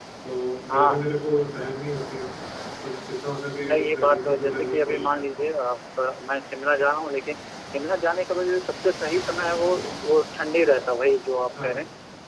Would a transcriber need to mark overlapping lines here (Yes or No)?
Yes